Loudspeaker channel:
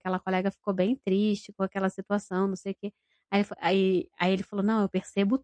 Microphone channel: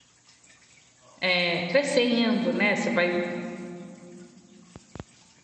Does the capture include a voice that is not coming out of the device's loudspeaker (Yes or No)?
Yes